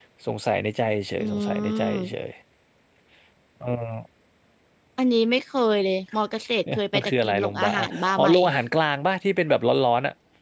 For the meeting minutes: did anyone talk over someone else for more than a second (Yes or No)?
Yes